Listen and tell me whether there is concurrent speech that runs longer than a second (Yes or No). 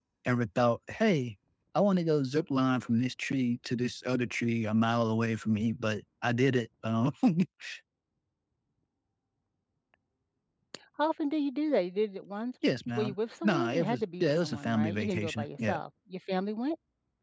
Yes